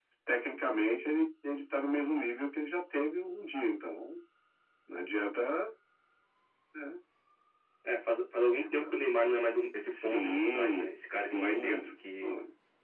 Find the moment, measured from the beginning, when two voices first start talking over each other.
9.9 s

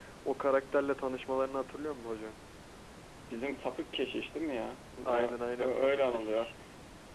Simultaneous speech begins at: 5.0 s

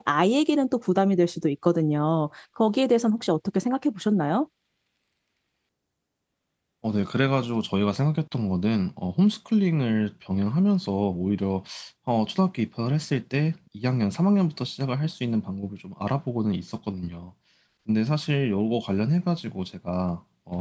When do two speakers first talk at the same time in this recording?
none

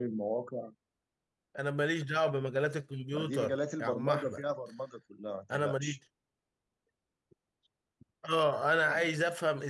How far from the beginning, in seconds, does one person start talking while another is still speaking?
3.1 s

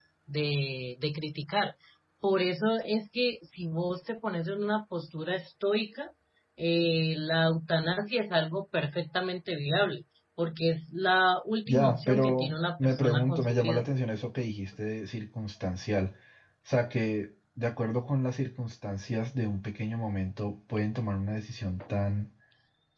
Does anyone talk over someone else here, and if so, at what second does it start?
11.7 s

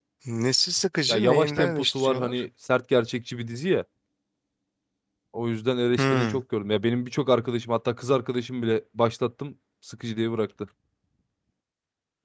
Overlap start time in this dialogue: 1.1 s

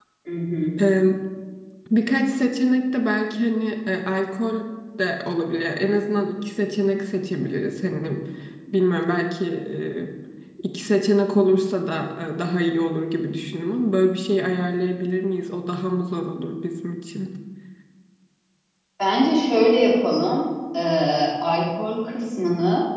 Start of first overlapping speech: none

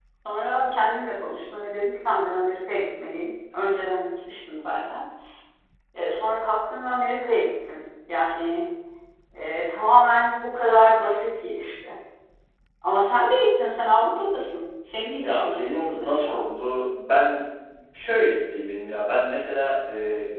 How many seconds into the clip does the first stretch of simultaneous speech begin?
15.2 s

